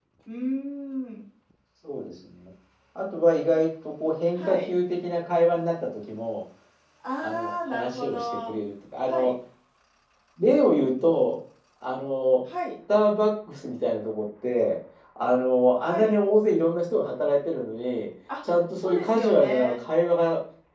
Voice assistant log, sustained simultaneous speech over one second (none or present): present